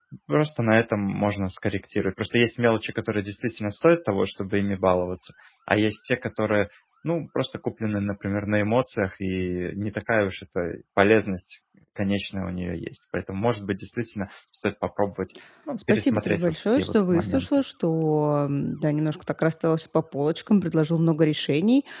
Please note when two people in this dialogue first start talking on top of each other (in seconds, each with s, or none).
15.9 s